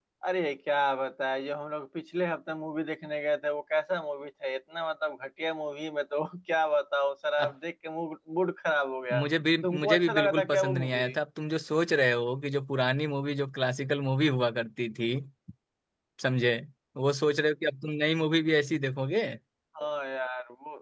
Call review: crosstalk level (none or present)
present